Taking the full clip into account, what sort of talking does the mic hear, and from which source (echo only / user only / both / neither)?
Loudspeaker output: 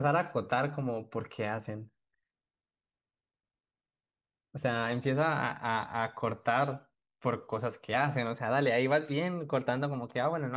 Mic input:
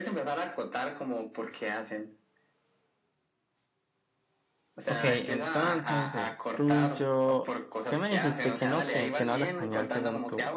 both